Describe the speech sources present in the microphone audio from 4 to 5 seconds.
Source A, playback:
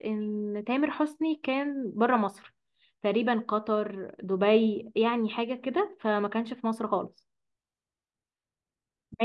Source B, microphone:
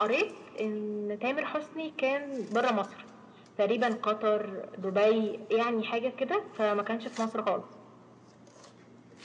echo only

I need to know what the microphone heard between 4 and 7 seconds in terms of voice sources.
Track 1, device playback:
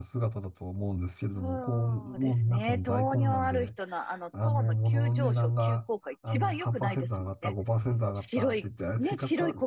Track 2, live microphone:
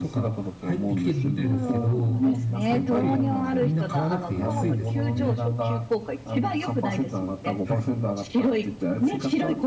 both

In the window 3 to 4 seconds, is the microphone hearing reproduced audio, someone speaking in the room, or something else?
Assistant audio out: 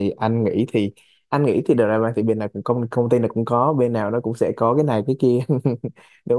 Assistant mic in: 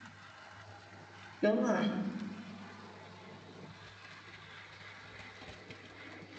neither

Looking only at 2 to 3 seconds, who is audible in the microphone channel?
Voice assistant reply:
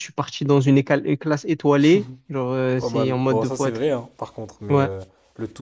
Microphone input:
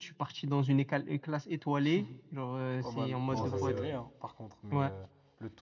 echo only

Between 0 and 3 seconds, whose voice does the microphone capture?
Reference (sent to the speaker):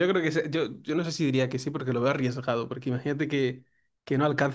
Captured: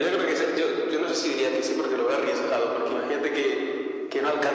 echo only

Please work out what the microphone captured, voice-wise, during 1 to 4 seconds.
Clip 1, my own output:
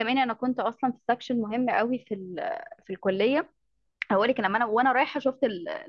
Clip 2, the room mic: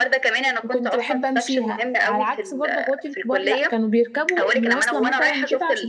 both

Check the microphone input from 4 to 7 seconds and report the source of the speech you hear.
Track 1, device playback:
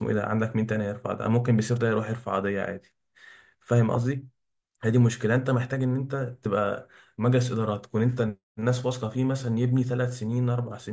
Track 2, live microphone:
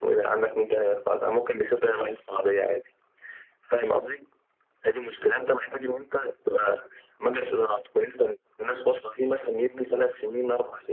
echo only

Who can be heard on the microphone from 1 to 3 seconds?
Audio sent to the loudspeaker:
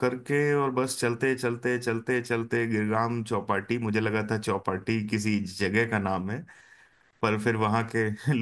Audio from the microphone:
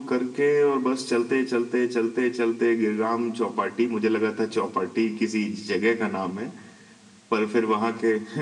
echo only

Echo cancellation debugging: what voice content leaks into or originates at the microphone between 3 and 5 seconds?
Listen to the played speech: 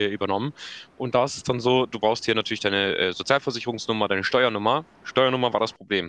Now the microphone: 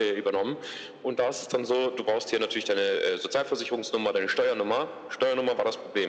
echo only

